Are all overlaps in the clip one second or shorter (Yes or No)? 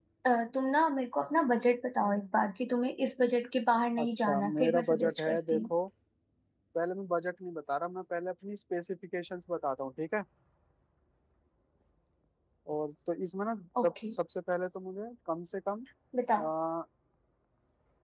No